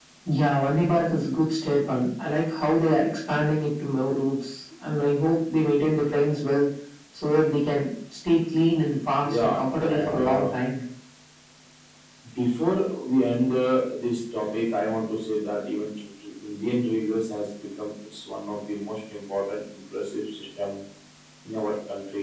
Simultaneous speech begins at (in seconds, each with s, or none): 9.2 s